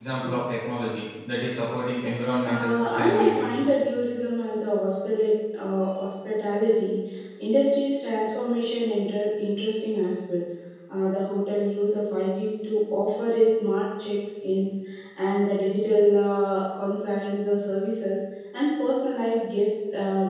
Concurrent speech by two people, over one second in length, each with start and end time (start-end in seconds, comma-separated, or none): 2.4-3.8